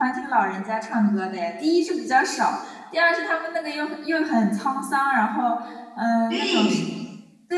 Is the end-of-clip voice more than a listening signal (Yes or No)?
No